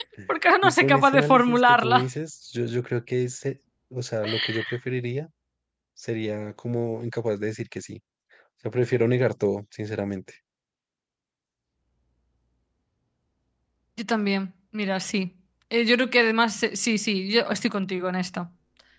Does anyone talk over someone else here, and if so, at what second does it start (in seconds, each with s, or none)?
0.6 s